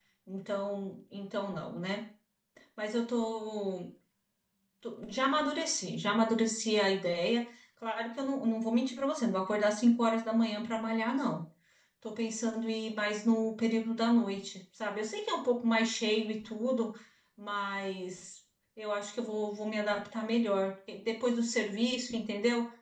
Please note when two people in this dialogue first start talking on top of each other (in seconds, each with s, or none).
none